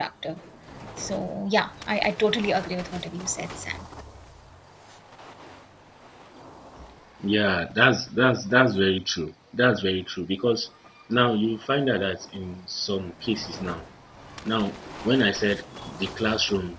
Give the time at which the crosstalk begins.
none

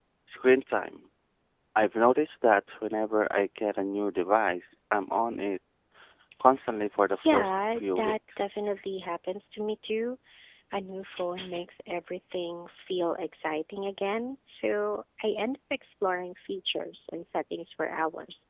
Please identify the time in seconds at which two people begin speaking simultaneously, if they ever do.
7.2 s

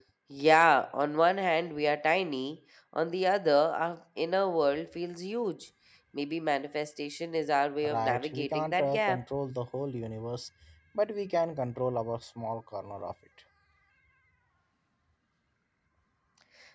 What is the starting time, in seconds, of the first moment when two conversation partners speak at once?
7.8 s

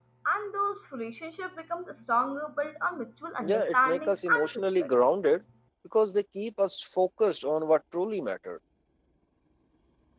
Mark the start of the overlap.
3.4 s

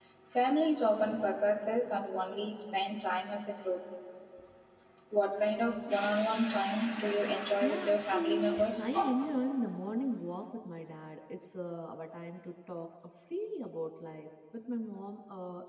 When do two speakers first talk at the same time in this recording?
7.6 s

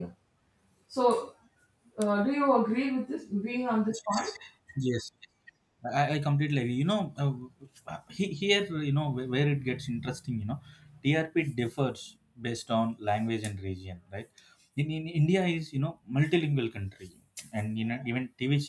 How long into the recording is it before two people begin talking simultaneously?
none

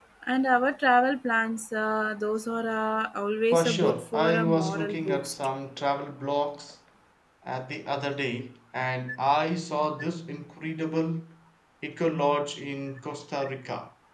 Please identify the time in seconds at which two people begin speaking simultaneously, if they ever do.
3.5 s

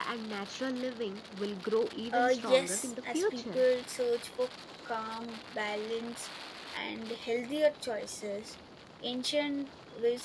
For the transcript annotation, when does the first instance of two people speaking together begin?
2.1 s

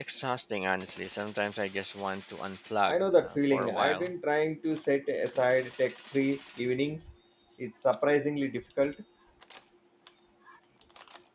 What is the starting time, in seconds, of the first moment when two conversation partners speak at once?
2.9 s

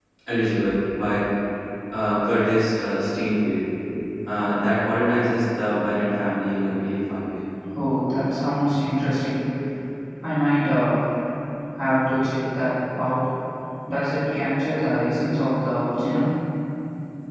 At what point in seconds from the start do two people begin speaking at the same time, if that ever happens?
none

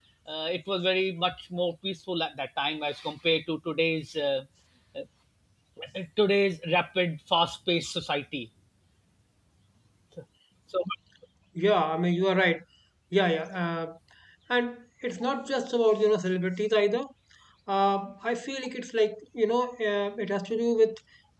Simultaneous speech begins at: none

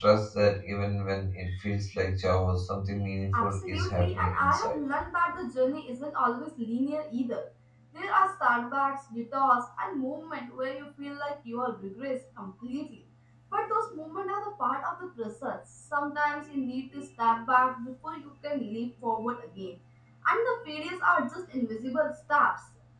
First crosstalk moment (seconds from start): 3.3 s

